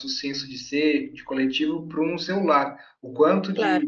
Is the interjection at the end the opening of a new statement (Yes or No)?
No